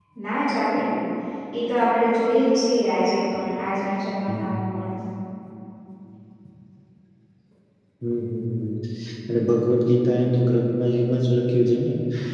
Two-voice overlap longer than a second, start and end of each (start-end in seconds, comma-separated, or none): none